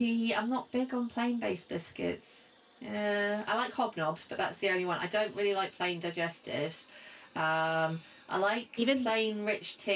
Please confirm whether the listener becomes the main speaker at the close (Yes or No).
No